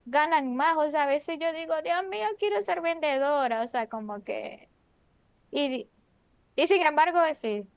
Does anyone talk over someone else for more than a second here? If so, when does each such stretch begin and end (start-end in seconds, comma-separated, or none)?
none